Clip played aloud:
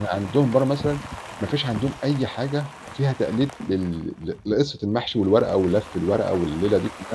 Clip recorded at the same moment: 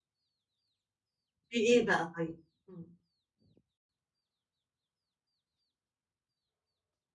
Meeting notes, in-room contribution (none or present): present